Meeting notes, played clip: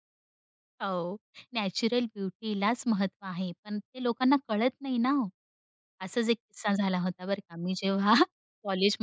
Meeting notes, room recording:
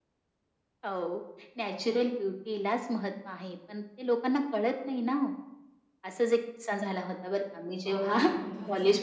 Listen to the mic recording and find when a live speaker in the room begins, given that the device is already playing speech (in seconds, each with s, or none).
7.9 s